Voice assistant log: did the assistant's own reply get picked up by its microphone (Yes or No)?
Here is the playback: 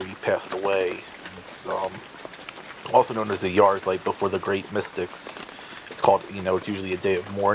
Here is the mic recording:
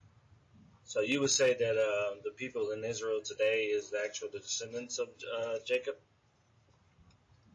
No